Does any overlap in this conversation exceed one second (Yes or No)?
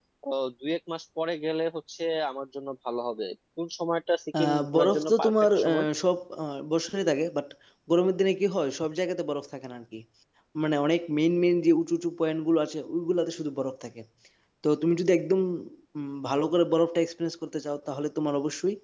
Yes